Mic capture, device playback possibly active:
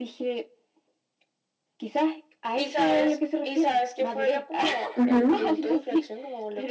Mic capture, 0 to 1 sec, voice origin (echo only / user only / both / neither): echo only